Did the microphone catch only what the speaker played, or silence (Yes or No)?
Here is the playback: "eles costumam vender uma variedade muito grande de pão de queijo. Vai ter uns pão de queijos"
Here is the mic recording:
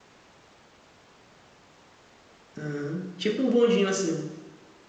No